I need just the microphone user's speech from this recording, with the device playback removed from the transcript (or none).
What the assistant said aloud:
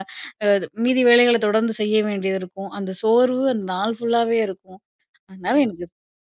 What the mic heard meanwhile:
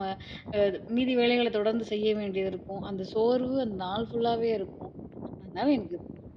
none